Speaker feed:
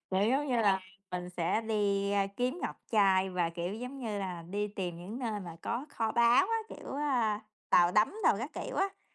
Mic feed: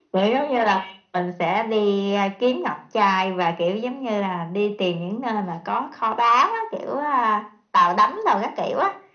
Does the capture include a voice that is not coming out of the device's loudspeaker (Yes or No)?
No